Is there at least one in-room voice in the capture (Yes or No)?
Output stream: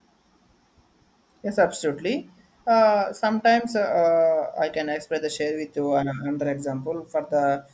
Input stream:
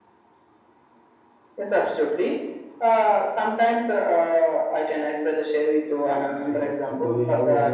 Yes